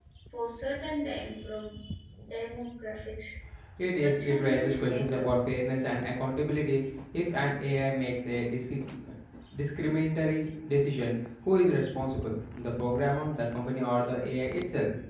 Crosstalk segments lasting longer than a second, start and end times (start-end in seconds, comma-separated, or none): 4.0-5.3